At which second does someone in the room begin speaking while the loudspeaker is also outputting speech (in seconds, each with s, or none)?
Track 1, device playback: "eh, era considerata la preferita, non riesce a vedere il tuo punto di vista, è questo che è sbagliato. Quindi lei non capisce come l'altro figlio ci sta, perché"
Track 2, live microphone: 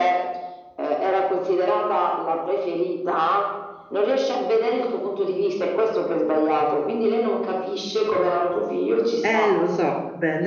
9.2 s